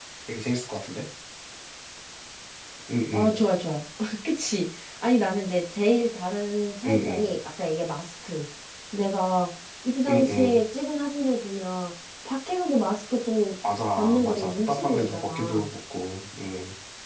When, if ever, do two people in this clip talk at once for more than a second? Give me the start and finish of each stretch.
14.0-15.7

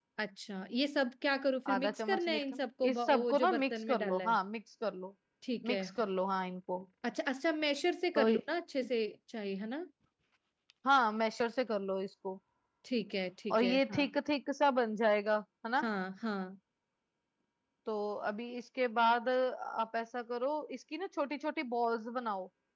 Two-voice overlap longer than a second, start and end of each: 1.7-4.4

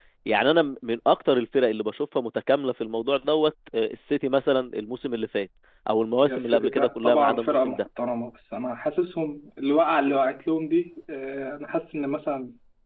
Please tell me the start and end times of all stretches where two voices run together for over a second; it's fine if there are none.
6.2-7.8

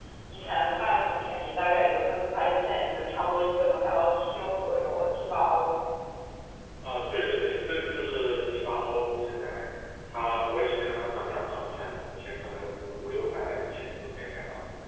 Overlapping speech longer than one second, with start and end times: none

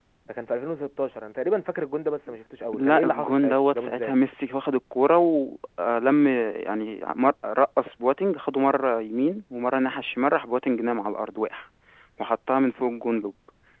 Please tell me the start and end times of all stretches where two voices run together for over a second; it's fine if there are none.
2.7-4.1

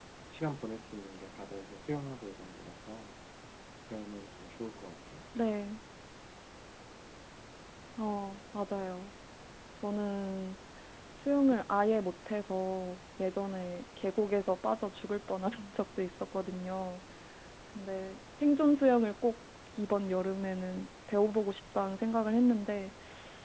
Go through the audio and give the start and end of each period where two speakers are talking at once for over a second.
none

